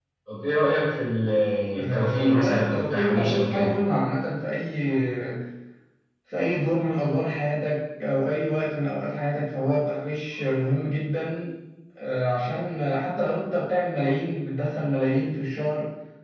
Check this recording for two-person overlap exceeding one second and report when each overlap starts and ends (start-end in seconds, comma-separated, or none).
1.8-3.7